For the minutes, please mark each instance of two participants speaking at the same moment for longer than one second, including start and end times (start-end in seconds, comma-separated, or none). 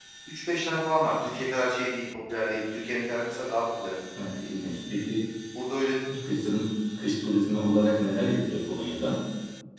none